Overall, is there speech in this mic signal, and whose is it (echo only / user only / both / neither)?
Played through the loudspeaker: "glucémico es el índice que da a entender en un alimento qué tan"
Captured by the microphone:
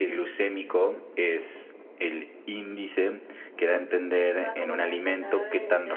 both